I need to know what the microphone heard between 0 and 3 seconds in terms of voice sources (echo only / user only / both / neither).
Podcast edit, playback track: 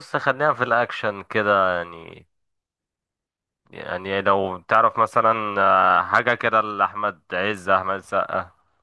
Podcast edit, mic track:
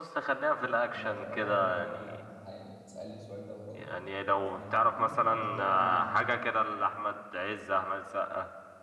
both